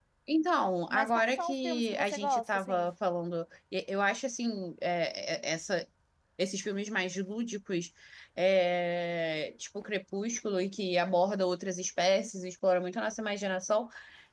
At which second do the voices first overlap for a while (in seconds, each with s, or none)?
0.9 s